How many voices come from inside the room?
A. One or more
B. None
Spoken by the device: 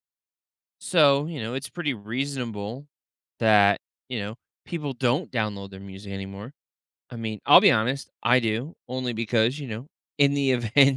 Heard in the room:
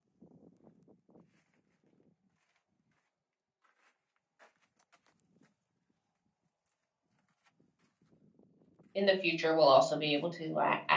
A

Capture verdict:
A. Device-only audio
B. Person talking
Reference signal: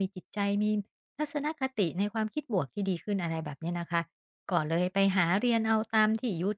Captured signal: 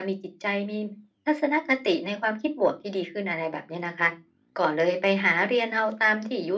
A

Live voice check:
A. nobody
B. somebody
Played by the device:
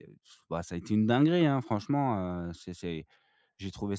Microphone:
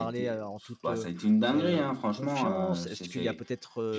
B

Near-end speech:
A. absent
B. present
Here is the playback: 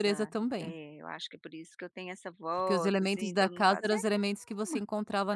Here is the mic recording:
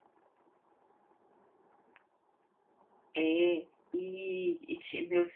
B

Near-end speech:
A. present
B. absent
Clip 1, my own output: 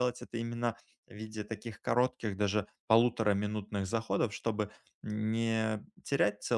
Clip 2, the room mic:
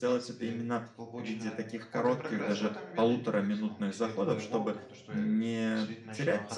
A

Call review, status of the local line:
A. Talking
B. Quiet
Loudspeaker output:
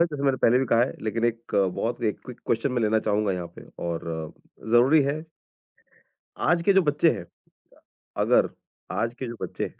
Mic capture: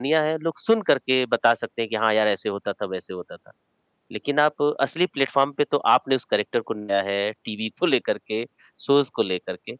A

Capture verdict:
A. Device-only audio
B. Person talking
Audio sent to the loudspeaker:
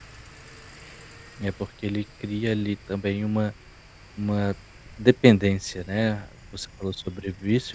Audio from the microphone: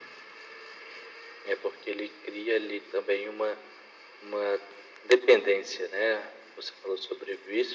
A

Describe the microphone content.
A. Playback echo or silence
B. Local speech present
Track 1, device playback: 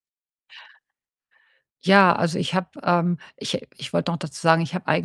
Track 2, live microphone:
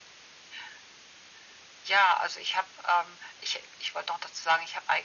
A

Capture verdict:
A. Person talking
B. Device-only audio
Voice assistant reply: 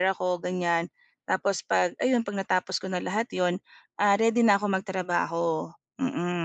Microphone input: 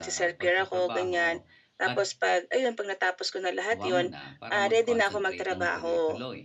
A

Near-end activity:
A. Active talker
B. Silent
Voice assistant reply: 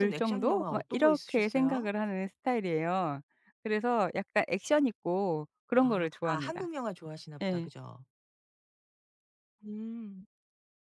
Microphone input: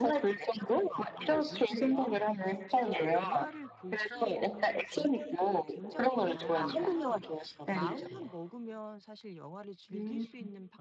A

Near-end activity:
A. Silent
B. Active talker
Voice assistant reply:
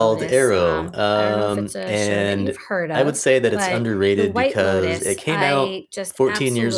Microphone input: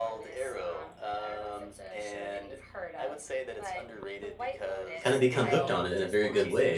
B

